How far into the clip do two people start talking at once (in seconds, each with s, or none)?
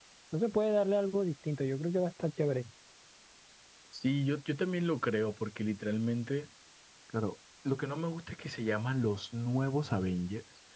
none